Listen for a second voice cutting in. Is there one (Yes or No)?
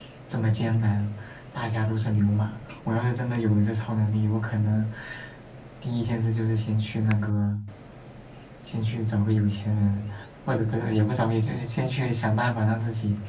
No